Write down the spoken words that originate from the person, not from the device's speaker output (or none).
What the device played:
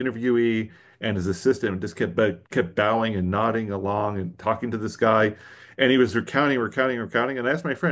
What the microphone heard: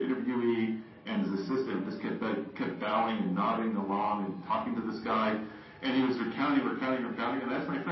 none